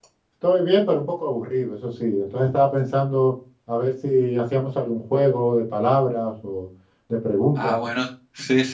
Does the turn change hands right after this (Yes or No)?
Yes